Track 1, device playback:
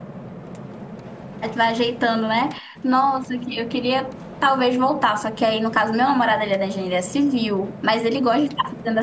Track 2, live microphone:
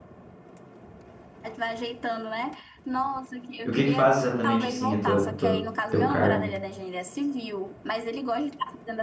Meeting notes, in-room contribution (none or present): present